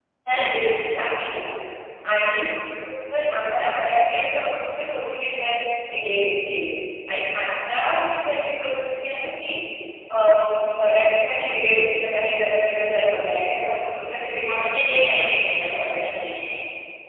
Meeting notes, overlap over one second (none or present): present